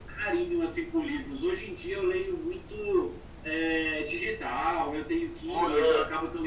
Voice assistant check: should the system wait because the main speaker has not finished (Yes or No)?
Yes